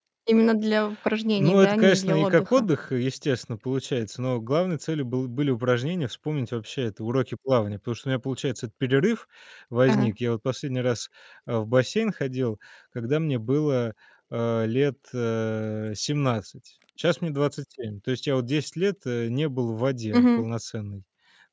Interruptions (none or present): present